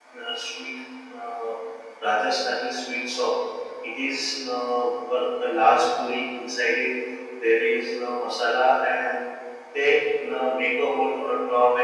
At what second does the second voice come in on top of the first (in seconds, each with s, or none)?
none